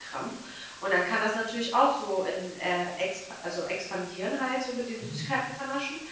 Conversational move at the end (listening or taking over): listening